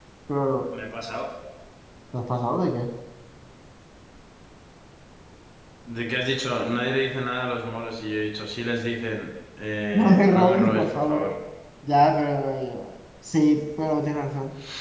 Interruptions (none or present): present